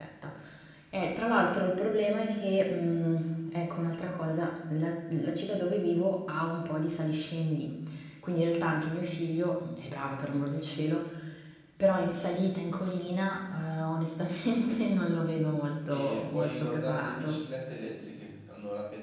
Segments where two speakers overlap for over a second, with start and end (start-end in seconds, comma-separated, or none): 15.9-17.4